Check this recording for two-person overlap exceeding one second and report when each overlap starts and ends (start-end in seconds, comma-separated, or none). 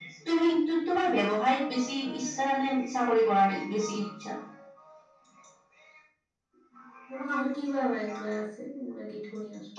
none